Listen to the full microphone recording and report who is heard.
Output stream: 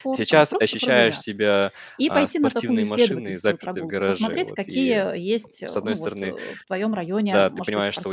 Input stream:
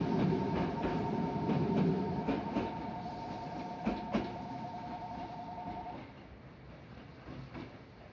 neither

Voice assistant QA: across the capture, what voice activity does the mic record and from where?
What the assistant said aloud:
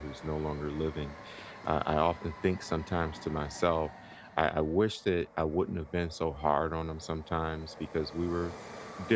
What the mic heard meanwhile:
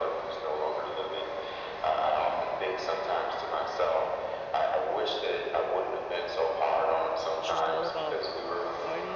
both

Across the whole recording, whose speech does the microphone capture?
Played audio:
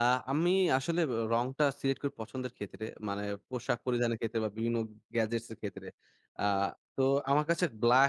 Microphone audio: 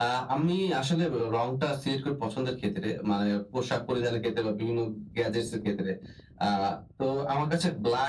echo only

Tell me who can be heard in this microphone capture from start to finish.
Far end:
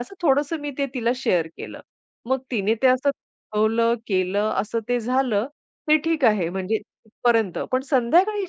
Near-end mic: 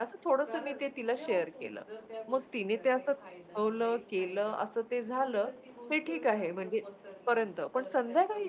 both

